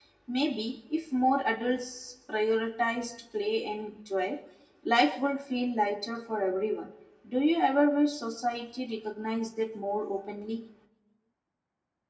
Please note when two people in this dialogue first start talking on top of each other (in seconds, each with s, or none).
none